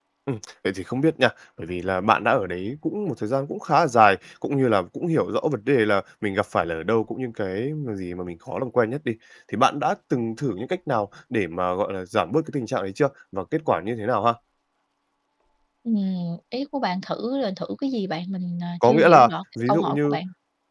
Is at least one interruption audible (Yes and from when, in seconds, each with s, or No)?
Yes, from 18.8 s